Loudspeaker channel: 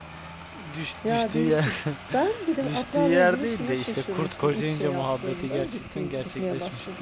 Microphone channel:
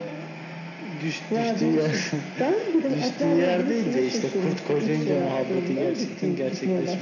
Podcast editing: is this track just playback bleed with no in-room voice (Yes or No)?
No